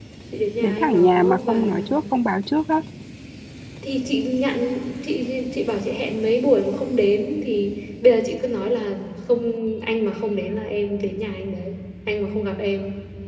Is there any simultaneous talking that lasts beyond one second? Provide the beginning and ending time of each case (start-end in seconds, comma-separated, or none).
0.6-1.8